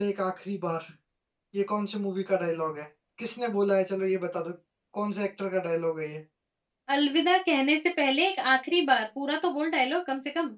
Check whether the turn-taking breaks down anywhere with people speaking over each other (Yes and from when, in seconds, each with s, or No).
No